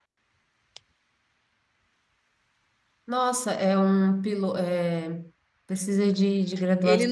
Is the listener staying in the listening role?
No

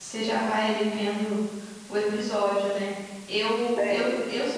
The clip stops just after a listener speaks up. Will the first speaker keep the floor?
Yes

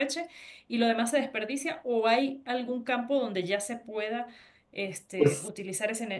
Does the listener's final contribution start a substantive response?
No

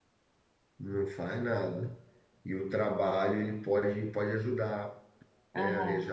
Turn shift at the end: No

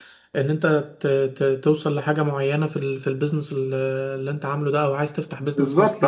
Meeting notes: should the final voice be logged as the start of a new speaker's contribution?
Yes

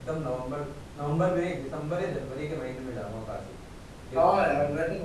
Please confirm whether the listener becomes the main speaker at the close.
Yes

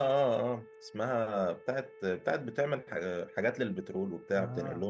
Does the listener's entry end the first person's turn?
Yes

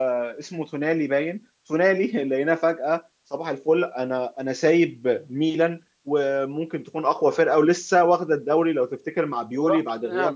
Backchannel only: Yes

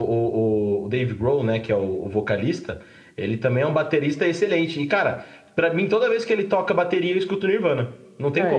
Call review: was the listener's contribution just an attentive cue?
No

